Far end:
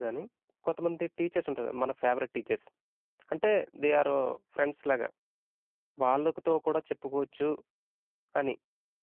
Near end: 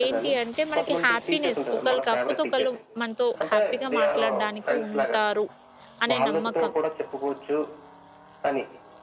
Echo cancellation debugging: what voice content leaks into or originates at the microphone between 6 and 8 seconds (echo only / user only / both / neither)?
both